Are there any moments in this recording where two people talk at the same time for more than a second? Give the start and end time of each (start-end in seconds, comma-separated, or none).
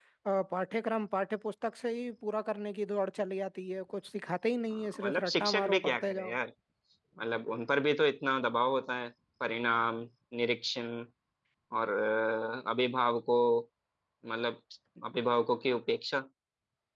4.7-6.3